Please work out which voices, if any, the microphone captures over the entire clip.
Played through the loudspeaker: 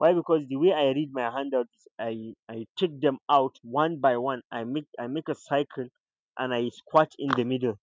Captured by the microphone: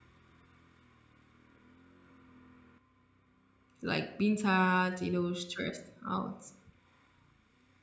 user only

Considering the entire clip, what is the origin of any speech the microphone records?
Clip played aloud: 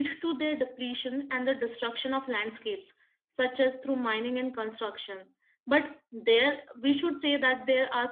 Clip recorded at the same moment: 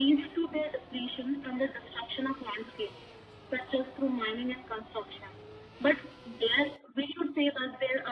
echo only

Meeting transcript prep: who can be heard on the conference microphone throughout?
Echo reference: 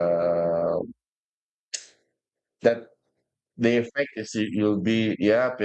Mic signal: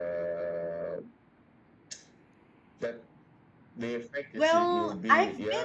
both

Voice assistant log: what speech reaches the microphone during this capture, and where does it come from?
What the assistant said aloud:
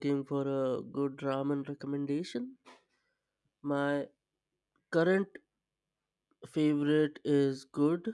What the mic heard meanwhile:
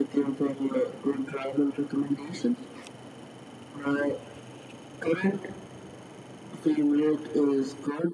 echo only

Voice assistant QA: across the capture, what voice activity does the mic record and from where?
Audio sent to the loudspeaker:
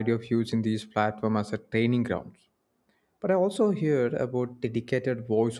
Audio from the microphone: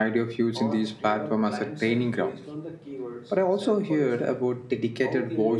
both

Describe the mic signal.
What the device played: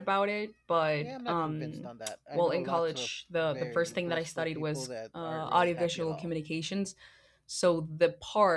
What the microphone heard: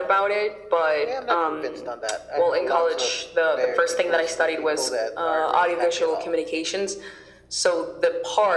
echo only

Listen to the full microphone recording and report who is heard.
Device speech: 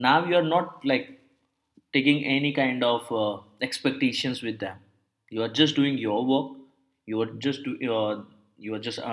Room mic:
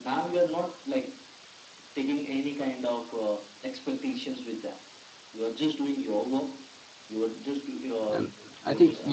both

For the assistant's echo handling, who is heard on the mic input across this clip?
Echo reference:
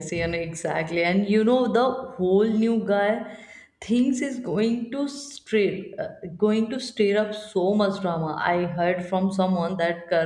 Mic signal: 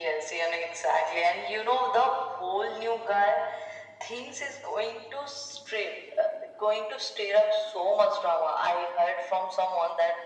echo only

